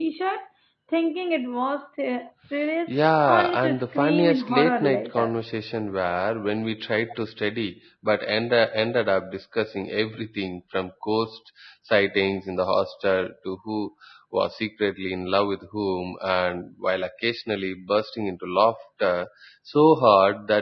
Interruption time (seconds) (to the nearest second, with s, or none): 3 s